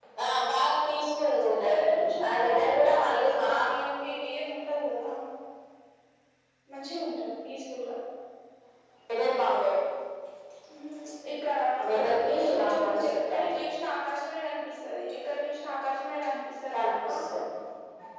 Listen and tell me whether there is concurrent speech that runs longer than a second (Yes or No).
Yes